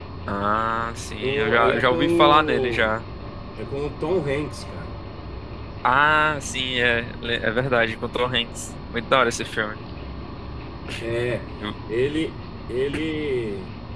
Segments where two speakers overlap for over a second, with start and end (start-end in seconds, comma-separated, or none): 1.2-3.0